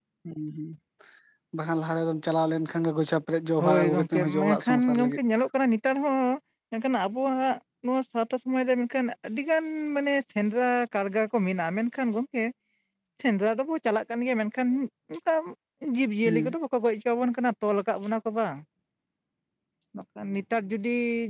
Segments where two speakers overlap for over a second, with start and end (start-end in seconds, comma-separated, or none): 3.6-5.2